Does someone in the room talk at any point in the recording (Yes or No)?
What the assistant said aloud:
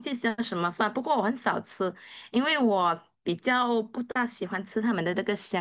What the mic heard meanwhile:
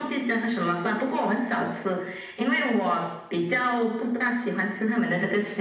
No